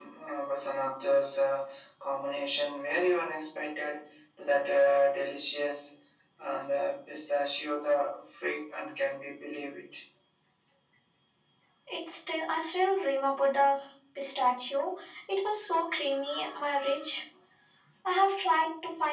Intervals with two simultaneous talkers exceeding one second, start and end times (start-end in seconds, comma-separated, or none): none